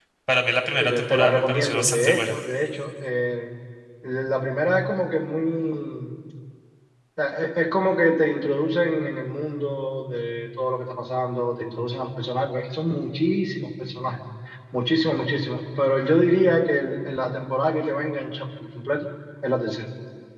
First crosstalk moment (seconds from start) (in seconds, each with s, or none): 0.8 s